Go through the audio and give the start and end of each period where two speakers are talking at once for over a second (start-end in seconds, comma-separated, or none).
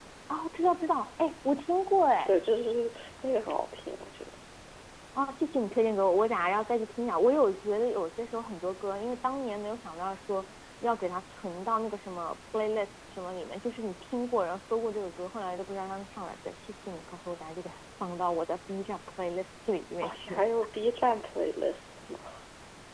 none